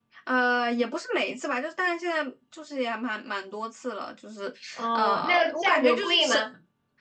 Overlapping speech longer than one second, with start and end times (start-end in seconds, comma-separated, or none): 5.0-6.4